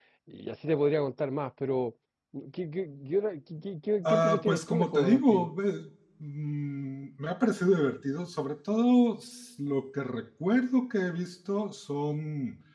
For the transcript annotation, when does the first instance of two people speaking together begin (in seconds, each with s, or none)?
4.0 s